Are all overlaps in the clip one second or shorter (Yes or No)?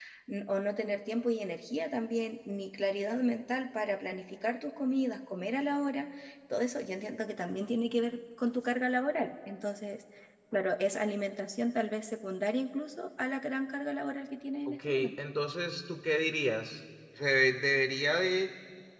Yes